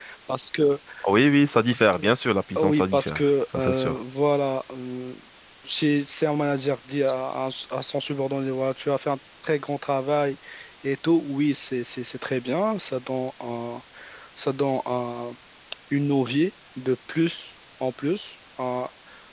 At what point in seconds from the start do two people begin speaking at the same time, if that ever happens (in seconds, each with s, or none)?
2.6 s